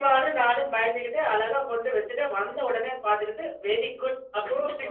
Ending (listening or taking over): taking over